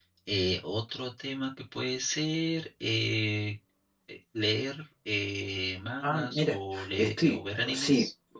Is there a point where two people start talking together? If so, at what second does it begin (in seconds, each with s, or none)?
6.0 s